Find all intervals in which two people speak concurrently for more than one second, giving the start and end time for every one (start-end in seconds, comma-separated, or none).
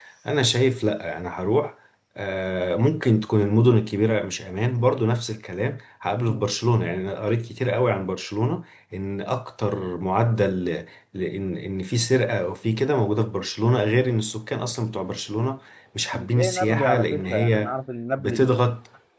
16.1-17.7